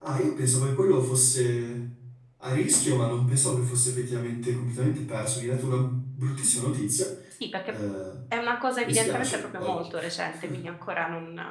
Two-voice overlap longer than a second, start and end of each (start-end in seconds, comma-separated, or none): 8.8-10.5